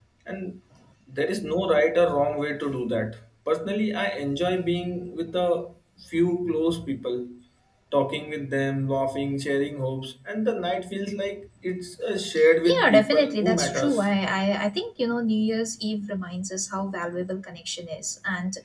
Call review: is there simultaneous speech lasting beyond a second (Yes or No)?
Yes